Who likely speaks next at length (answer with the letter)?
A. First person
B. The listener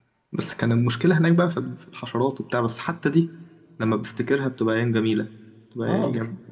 B